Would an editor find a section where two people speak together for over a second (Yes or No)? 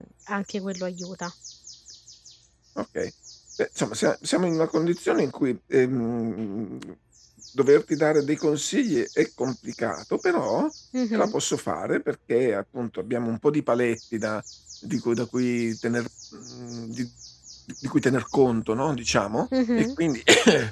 No